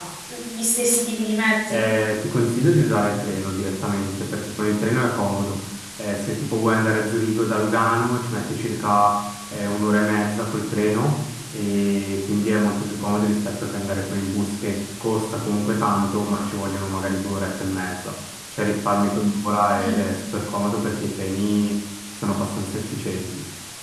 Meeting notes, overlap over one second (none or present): none